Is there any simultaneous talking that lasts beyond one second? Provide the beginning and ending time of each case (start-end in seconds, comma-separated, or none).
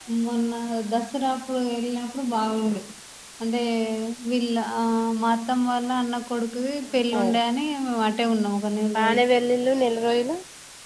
none